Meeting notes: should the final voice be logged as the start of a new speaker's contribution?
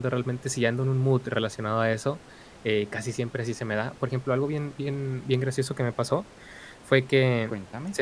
No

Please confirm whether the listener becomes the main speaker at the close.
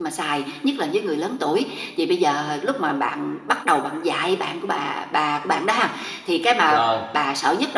No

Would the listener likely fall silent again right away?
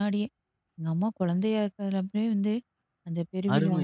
No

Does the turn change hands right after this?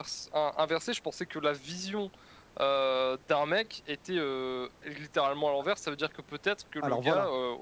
No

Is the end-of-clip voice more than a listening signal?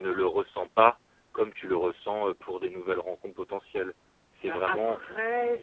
Yes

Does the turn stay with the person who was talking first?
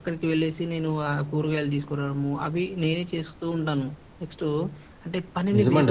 No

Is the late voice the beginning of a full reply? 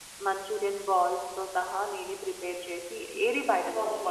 Yes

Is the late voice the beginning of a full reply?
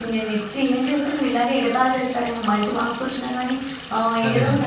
No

